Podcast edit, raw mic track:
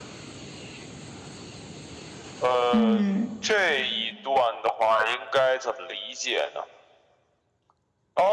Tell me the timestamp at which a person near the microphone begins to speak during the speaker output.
3 s

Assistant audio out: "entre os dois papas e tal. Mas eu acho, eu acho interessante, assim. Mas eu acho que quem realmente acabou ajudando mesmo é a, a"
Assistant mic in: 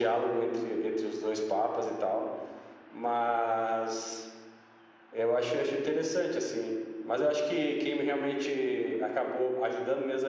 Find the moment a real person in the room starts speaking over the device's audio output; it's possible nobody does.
none

